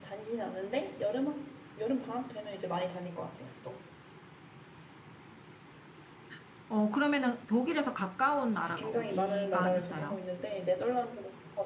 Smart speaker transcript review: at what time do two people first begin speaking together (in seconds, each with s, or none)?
8.7 s